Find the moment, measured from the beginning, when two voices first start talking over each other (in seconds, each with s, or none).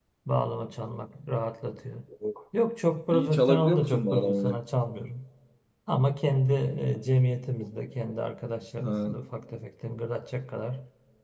3.1 s